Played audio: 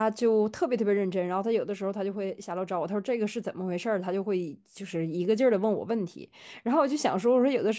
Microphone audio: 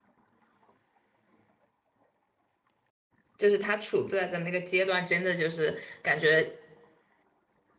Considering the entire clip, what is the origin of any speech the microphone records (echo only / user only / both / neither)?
user only